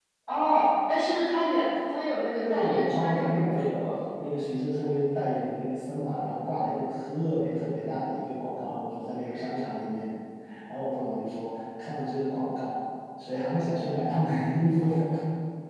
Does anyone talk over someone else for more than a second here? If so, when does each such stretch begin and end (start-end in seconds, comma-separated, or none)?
2.4-3.7